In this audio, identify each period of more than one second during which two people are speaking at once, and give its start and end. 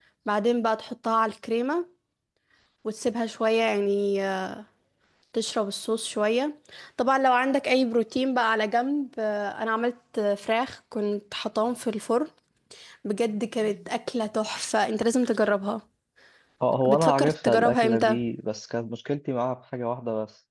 16.9-18.2

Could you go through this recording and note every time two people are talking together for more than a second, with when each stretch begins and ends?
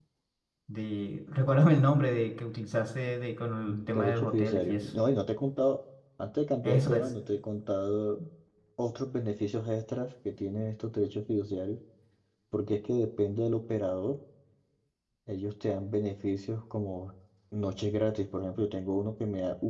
3.7-4.9

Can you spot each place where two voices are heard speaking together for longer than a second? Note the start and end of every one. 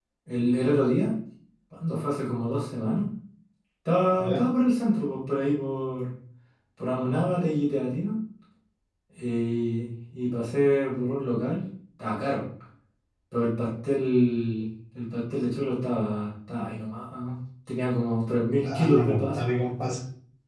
18.6-20.0

